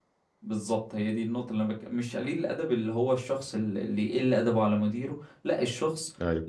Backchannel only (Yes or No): Yes